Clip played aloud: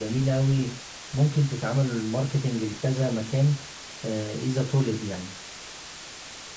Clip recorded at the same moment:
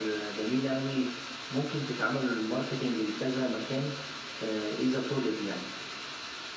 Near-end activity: none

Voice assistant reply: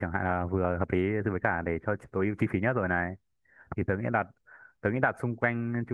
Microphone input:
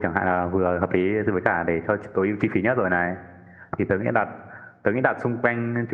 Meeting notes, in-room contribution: none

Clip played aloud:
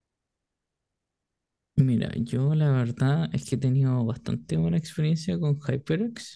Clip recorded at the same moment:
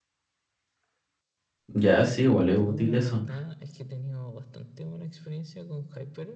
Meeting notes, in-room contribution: present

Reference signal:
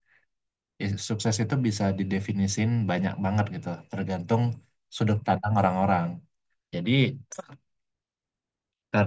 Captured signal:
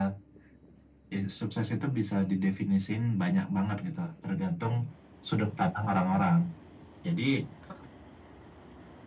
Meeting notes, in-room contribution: none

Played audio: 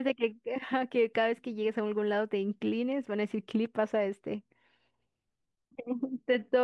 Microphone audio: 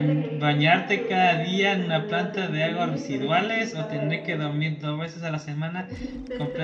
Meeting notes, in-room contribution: present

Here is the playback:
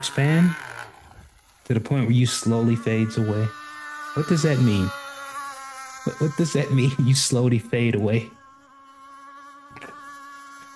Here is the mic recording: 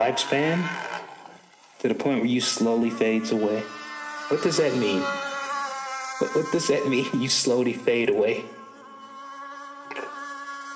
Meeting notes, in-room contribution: none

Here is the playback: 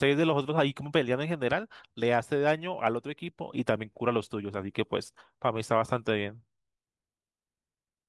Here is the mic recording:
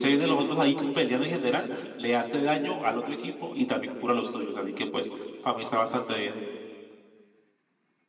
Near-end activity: none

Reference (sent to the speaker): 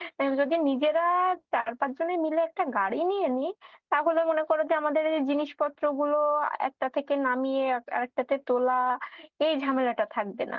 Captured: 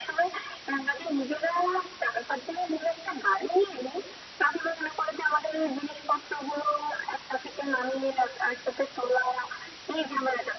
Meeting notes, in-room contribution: none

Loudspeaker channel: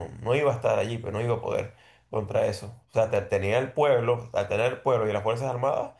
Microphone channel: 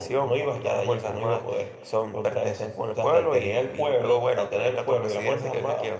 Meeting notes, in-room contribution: present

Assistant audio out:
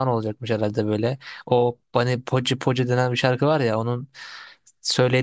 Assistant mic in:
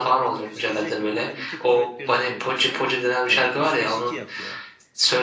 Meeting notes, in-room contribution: present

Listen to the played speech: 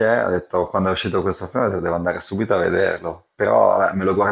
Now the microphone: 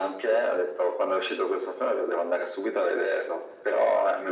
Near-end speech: none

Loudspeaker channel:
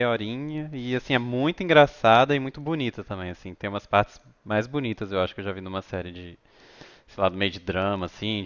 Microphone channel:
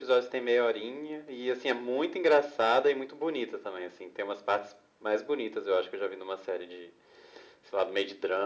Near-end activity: none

